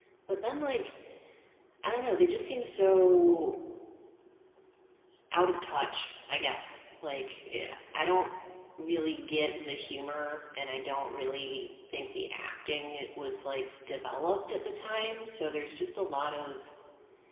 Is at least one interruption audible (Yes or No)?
No